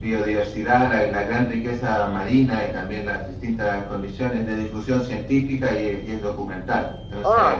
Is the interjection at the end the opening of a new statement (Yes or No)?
Yes